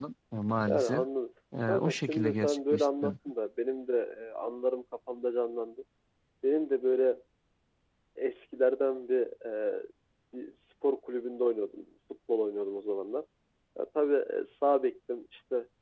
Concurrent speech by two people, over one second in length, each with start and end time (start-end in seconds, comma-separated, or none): 1.7-3.1